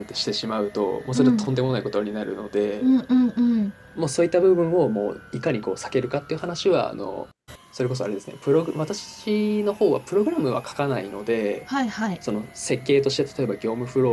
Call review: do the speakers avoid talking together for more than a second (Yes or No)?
Yes